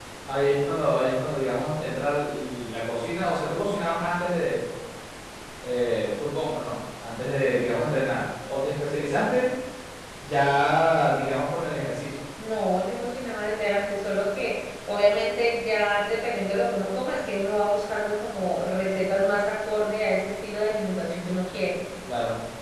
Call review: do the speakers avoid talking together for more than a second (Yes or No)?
Yes